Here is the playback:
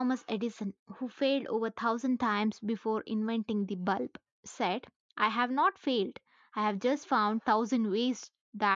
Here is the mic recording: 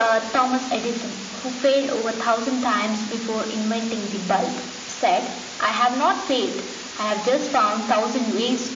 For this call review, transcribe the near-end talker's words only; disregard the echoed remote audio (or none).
none